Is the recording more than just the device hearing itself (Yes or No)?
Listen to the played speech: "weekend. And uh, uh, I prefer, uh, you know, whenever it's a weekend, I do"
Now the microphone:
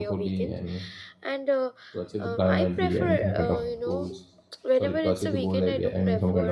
Yes